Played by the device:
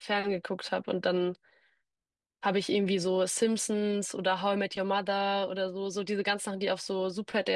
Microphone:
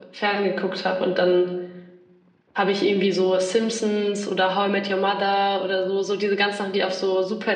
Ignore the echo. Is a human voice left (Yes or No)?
No